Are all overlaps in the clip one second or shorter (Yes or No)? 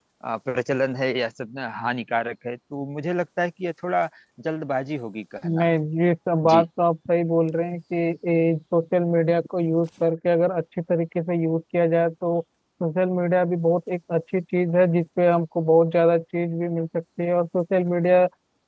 Yes